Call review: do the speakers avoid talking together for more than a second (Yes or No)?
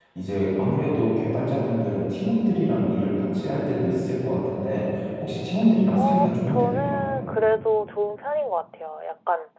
No